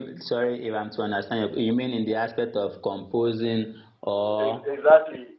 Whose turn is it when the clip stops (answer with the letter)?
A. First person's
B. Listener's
B